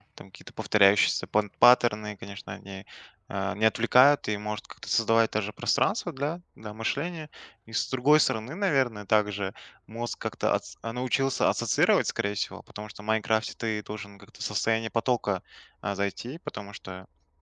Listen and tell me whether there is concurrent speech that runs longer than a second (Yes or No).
No